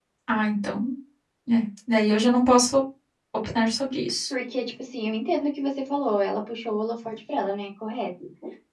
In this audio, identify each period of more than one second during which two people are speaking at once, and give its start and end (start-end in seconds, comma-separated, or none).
none